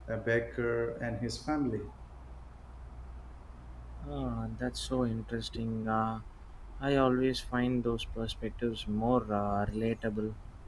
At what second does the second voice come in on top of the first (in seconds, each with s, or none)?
none